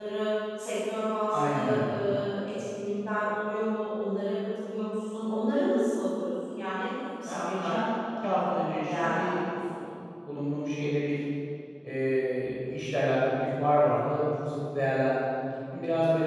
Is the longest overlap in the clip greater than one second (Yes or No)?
Yes